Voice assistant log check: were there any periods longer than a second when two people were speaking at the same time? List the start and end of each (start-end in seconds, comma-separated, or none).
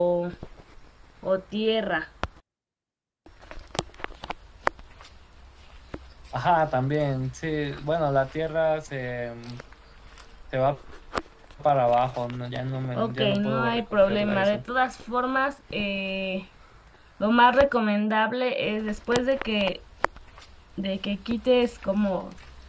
13.0-14.6